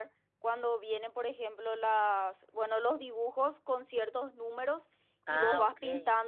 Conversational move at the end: listening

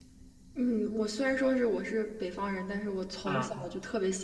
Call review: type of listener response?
listening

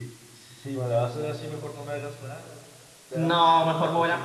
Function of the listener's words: taking over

